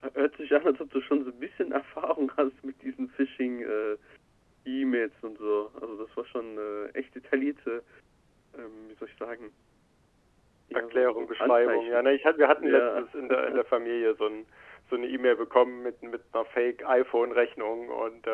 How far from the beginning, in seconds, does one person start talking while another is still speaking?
11 s

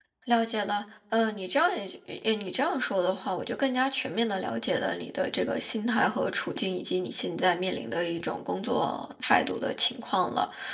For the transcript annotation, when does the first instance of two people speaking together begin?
none

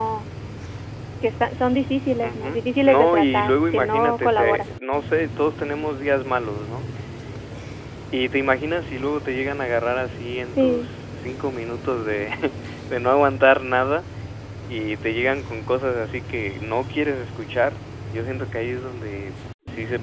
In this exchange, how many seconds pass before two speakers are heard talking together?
2 s

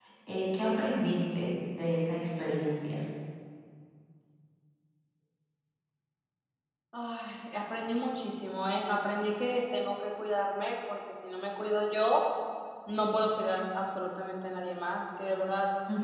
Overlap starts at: none

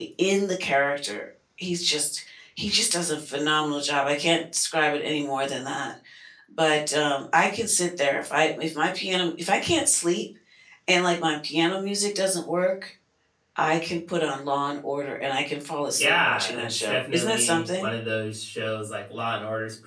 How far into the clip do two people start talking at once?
16 s

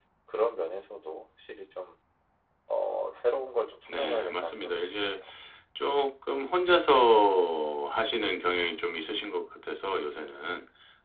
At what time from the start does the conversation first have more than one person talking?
4 s

